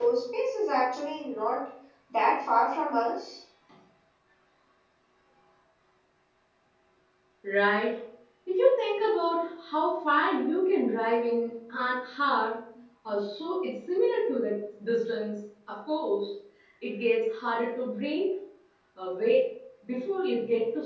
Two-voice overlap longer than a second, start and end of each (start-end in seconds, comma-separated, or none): none